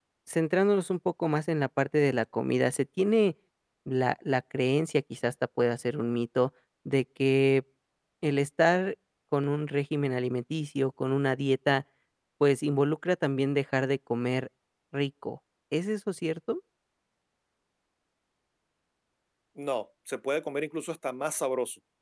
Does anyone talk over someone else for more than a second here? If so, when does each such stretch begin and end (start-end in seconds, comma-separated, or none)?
none